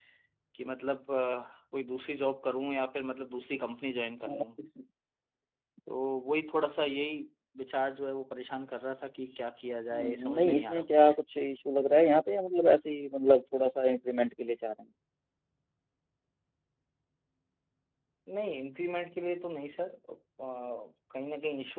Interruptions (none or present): present